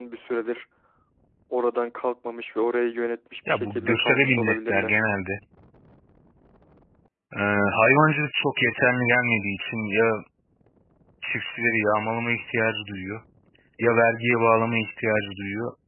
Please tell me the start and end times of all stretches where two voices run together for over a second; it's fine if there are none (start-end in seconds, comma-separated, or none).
3.5-5.0